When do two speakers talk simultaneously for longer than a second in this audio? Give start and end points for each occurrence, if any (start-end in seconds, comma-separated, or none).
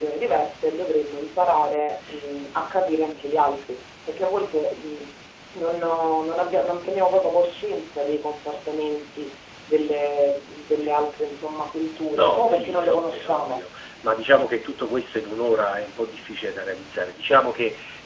12.2-13.6